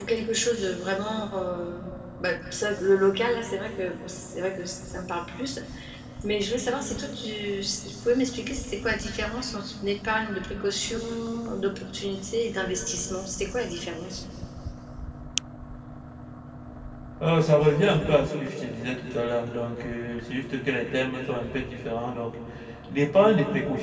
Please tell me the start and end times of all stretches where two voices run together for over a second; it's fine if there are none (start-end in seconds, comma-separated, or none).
none